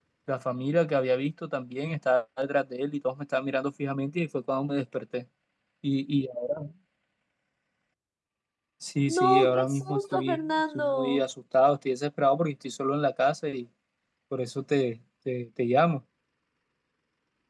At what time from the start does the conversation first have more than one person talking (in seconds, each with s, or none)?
9.2 s